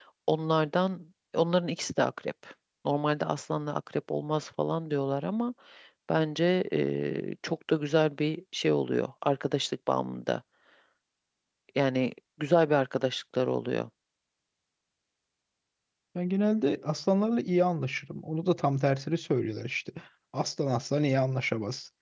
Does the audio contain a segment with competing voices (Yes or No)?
No